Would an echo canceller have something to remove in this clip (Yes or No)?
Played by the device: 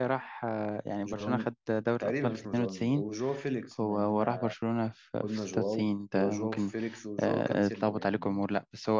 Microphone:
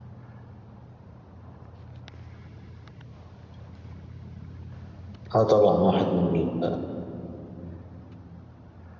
No